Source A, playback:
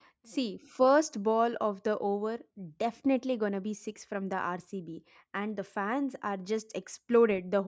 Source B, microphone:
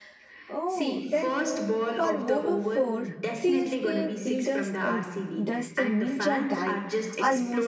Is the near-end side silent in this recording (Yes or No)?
No